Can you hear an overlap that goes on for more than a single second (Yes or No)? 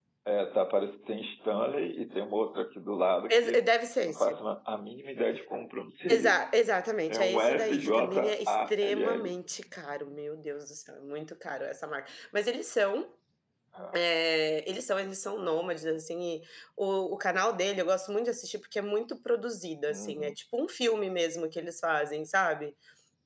Yes